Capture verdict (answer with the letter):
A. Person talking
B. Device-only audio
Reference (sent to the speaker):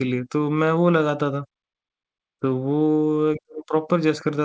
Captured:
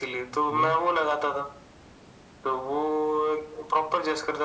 A